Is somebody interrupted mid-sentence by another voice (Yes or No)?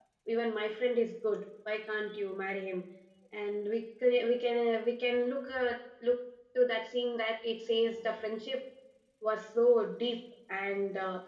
No